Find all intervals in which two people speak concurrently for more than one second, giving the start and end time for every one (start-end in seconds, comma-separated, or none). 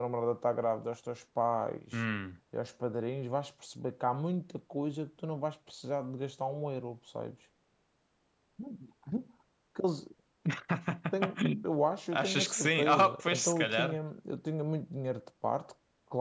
12.1-14.0